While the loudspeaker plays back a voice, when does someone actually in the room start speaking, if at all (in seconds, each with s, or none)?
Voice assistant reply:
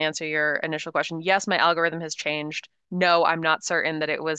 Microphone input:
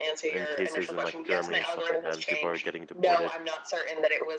0.3 s